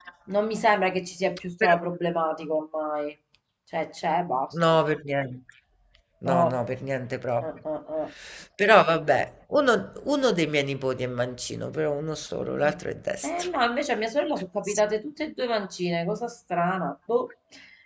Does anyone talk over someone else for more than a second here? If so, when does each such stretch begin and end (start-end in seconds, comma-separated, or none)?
none